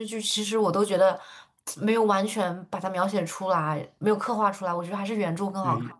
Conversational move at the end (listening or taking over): taking over